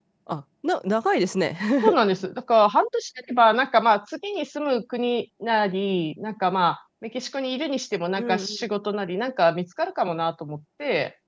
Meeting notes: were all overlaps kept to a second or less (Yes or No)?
Yes